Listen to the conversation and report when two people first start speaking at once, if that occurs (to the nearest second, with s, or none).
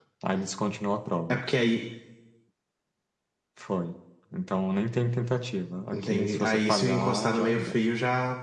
6 s